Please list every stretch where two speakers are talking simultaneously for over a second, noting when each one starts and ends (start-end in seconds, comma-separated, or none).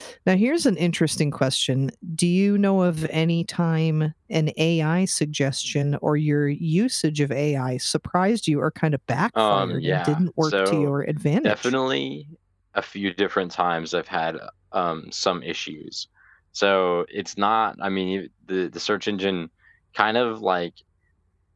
9.4-10.9